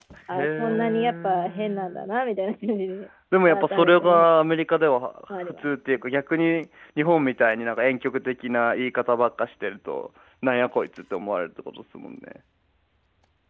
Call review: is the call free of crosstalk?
No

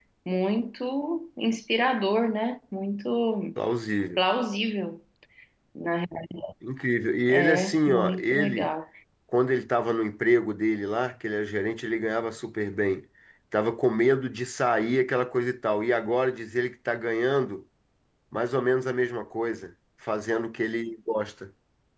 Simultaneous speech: Yes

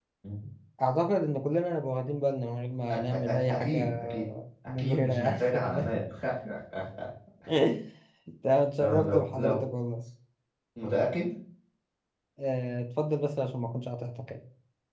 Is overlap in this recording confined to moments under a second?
No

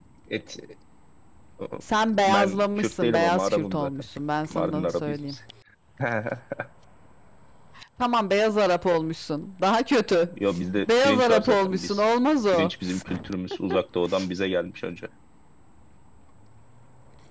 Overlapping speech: Yes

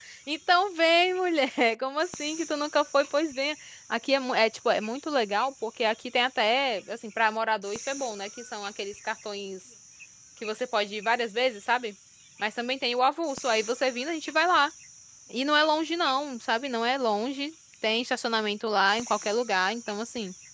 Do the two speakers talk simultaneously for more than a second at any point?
No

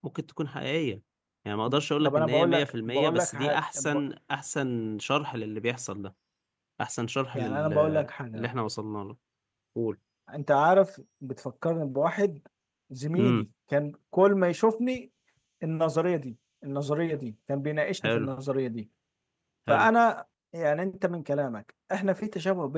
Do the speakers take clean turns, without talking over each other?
No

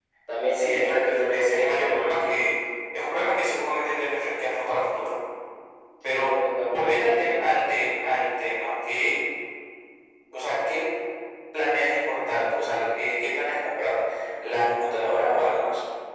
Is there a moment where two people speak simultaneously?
Yes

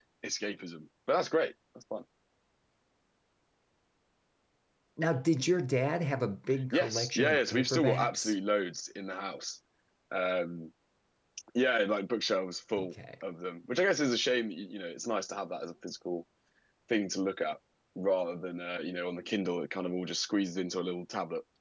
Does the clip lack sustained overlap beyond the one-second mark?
No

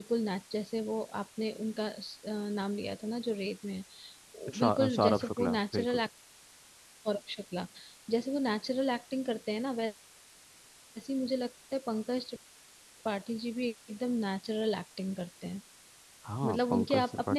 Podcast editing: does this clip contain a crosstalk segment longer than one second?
Yes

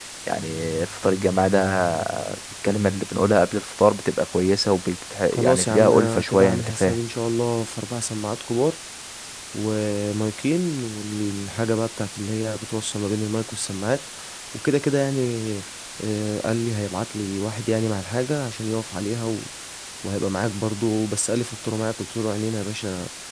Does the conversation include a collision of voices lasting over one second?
Yes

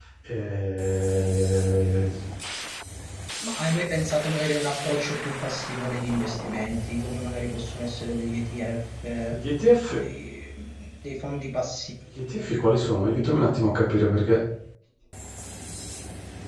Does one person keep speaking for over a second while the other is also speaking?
No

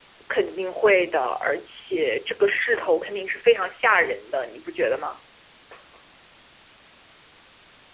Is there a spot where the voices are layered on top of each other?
No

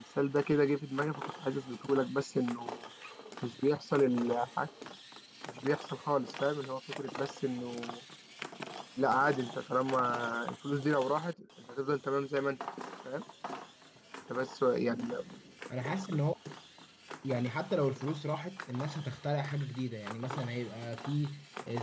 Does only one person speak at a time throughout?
Yes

